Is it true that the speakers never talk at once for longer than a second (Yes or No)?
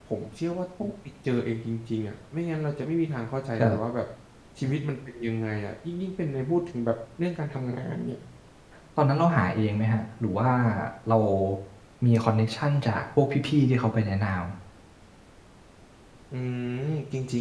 Yes